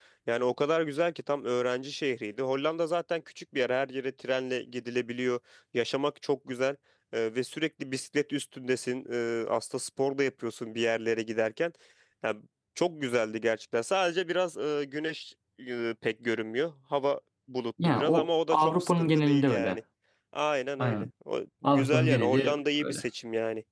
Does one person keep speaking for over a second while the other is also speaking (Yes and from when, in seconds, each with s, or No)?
Yes, from 17.8 s